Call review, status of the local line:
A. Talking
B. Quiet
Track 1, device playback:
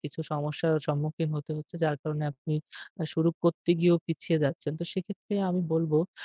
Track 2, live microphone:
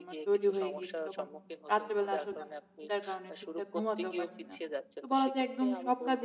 A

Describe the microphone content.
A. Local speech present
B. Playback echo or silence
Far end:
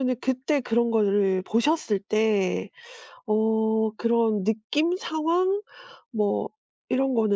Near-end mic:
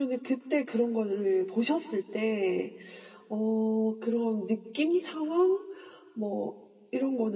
B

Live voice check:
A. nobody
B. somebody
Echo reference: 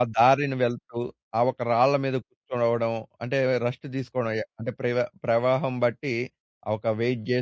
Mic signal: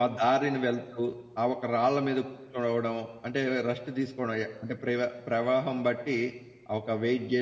A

